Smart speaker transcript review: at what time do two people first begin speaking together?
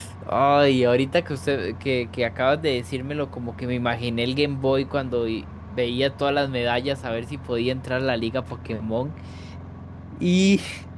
none

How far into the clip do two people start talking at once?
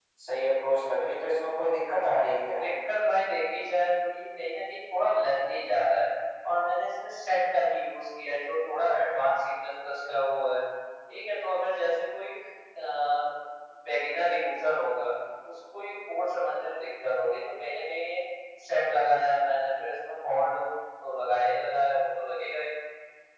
none

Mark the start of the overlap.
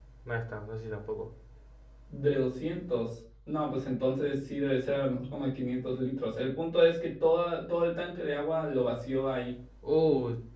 none

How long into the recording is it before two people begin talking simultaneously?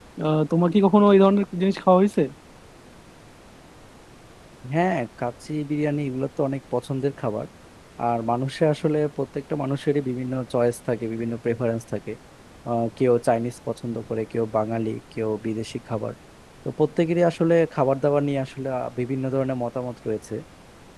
none

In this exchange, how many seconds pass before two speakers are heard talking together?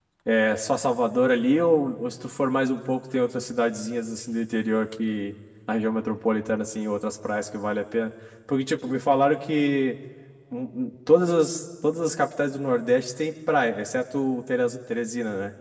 none

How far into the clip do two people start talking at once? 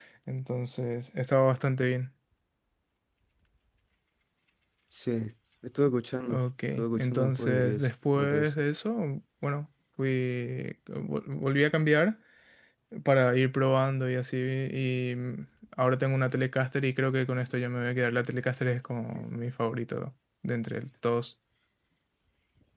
6.3 s

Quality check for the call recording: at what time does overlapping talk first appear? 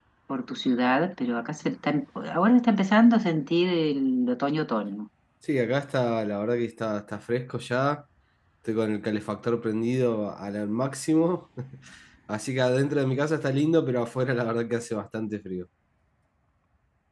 none

